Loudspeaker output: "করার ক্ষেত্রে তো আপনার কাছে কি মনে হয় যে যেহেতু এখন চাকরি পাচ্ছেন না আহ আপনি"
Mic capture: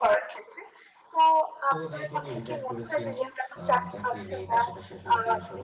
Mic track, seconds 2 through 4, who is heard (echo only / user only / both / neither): both